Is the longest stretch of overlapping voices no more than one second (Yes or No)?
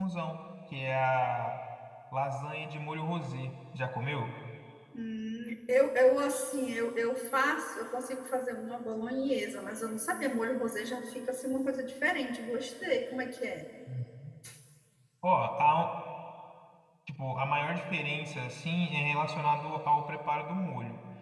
Yes